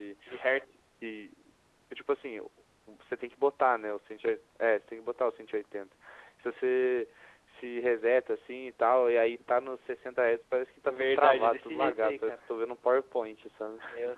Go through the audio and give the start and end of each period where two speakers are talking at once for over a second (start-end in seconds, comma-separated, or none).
10.9-12.3